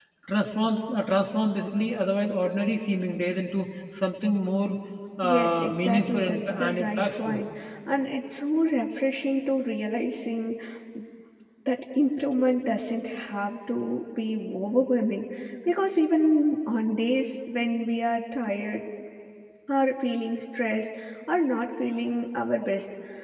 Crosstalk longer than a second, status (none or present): present